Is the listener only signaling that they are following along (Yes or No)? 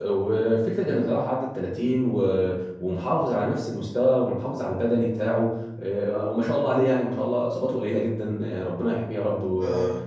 Yes